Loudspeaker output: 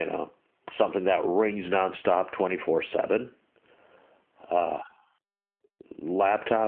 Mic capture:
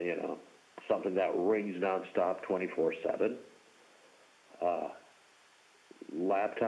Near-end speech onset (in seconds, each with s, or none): none